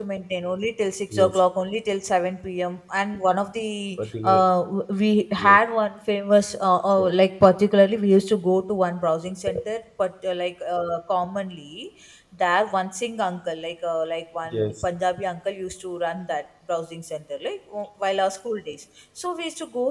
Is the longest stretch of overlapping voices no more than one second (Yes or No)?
Yes